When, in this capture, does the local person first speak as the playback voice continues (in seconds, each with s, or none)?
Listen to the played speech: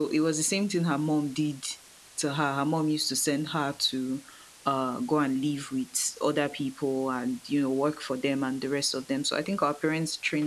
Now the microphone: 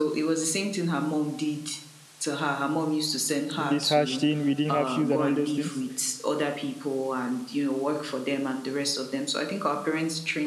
3.6 s